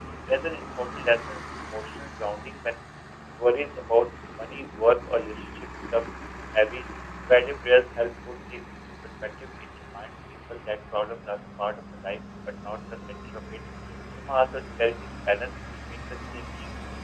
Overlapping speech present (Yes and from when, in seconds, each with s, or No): No